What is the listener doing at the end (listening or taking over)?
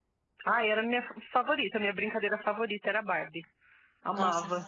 taking over